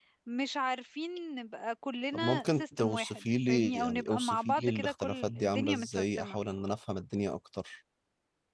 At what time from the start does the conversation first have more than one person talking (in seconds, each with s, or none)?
2.1 s